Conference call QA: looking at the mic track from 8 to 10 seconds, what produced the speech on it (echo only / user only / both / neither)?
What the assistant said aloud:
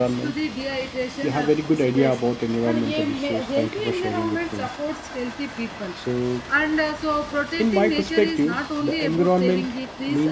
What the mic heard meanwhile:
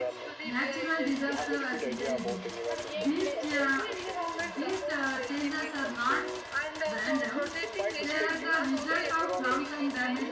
both